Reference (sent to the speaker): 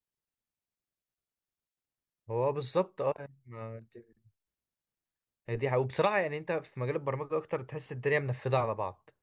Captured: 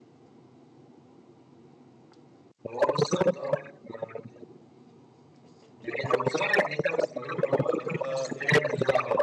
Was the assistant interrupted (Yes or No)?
Yes